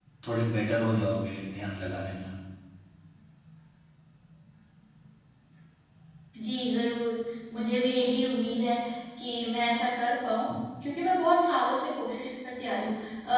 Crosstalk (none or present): none